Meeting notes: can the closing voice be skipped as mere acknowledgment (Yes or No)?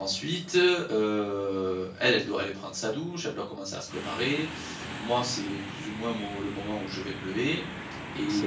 No